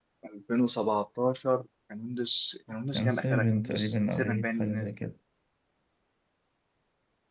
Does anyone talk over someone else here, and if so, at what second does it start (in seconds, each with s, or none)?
2.9 s